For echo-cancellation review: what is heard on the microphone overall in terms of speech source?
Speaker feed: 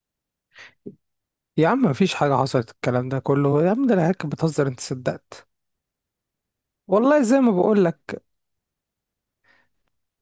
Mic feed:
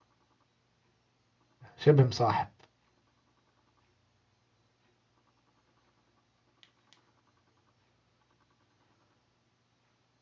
user only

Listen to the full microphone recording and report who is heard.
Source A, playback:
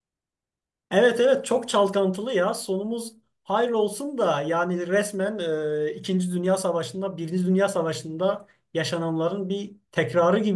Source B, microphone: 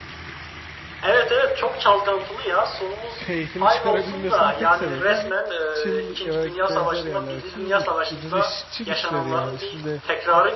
both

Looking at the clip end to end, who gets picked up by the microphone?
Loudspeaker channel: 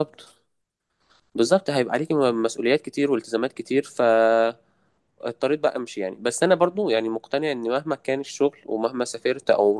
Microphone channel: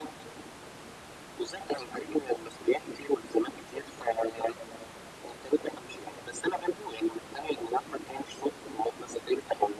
echo only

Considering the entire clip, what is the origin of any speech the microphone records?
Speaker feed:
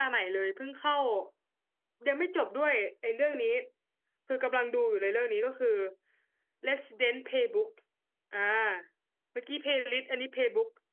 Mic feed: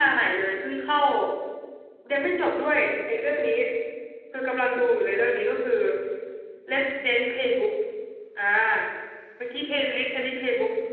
echo only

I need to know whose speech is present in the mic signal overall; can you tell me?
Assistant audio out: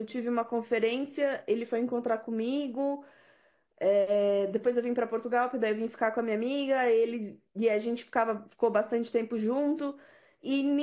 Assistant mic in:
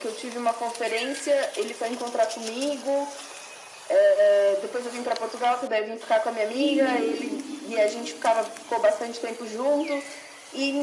both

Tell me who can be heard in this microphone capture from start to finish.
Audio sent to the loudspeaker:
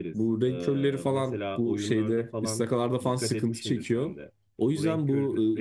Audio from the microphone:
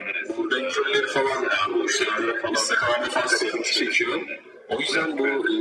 echo only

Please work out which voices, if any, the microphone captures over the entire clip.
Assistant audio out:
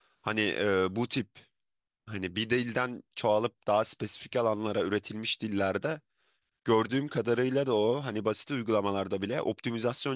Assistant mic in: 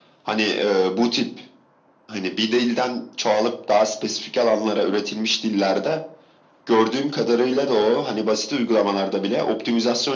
echo only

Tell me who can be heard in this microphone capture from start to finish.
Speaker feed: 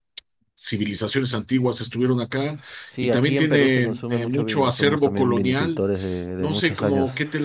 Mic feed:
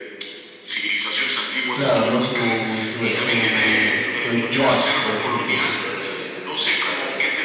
both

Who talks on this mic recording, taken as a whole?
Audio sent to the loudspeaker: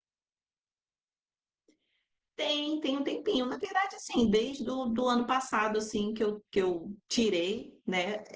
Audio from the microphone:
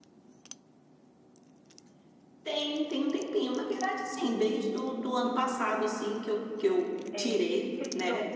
both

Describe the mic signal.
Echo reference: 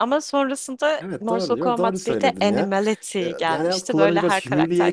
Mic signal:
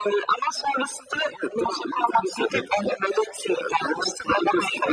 echo only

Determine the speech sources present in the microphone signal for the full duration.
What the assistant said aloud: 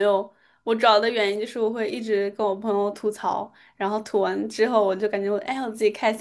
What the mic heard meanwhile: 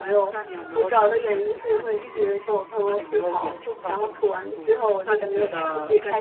both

